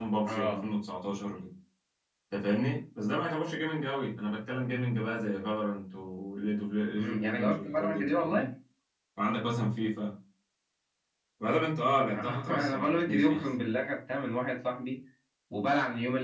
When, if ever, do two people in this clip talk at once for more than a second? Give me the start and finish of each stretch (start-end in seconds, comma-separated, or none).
7.0-8.5, 12.1-13.4